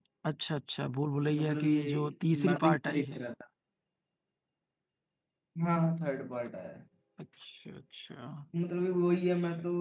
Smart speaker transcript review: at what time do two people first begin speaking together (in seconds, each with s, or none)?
1.2 s